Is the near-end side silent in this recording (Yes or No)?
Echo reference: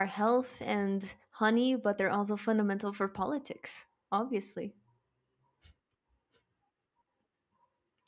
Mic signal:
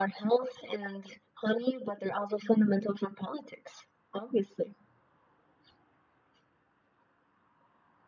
Yes